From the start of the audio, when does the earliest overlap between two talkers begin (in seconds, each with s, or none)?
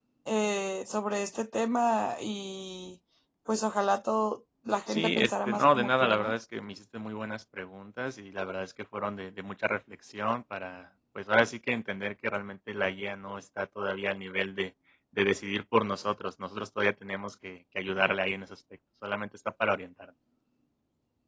4.9 s